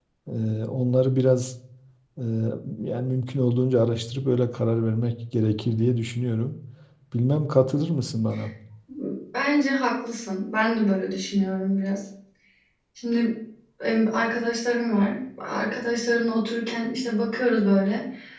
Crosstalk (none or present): none